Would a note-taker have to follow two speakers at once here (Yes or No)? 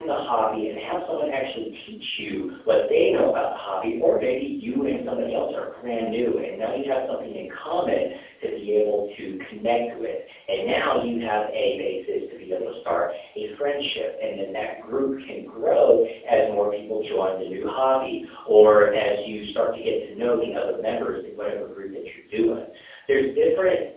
No